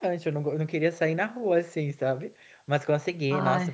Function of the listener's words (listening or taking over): listening